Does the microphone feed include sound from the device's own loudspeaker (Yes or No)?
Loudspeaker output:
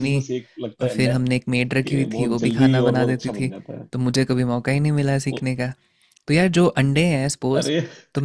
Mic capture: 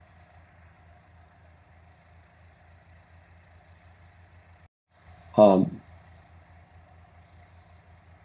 No